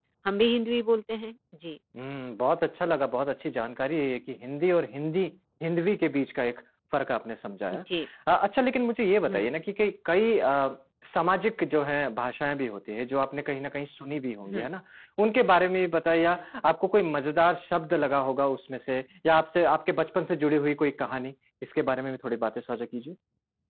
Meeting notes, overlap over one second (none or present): none